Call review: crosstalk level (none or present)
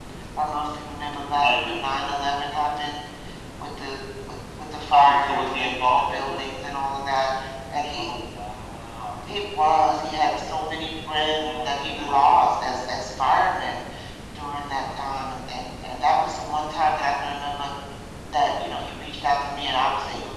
present